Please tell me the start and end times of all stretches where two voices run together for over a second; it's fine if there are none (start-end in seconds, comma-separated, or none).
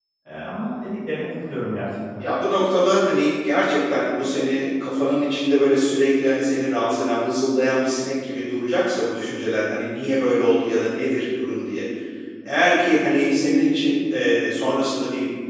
none